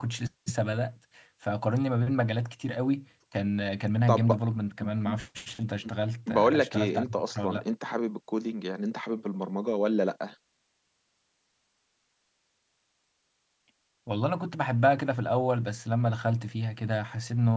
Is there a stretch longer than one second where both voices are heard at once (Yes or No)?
Yes